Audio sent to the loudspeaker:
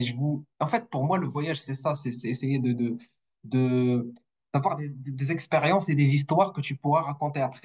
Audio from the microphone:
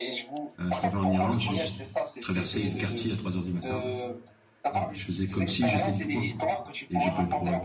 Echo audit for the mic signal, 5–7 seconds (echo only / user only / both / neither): both